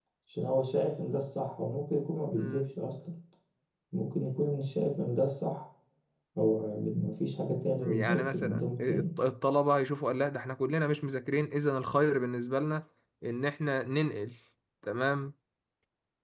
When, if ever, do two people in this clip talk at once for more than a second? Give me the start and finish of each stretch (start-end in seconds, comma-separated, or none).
7.8-9.1